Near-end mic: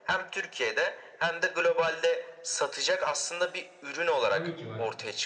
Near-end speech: present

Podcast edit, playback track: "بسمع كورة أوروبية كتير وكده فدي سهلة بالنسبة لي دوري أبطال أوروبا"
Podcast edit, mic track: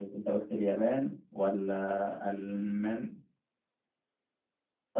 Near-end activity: present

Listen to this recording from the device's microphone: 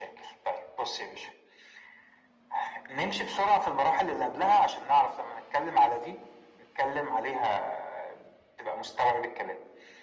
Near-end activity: none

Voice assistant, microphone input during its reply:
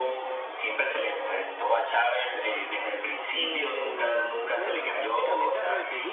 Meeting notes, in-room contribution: present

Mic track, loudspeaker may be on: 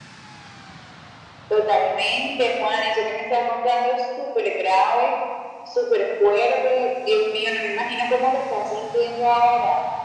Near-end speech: none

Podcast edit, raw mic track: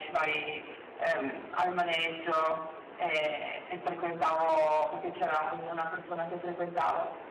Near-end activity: none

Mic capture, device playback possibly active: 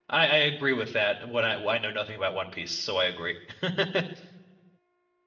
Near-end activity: present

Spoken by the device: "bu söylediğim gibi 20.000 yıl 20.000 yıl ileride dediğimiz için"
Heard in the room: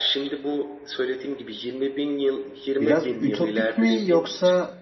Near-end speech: present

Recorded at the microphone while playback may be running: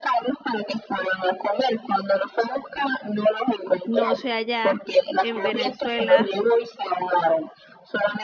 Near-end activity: present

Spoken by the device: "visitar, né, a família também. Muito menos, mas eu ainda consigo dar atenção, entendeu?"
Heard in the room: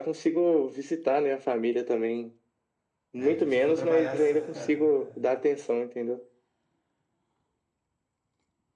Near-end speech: present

